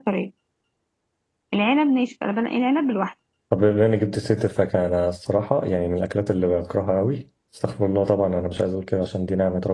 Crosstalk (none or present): none